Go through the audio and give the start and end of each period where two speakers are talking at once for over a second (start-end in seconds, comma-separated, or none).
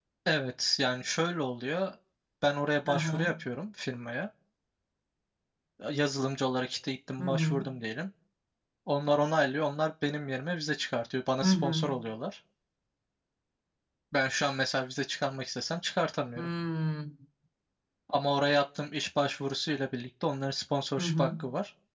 none